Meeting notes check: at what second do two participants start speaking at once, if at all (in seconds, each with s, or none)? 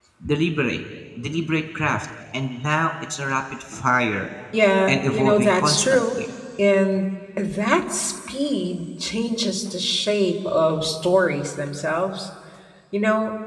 4.9 s